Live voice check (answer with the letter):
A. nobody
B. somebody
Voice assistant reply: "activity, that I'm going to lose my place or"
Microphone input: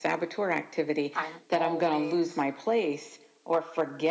B